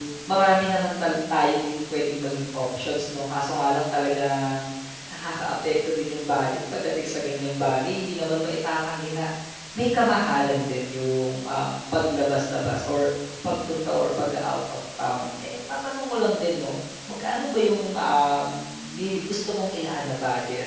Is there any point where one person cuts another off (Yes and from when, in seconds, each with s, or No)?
No